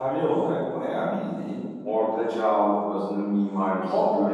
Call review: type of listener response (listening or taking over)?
listening